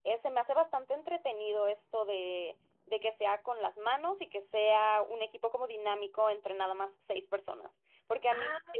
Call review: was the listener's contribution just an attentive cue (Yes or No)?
Yes